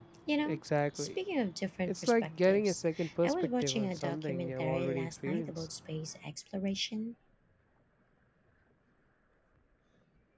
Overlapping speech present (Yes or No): Yes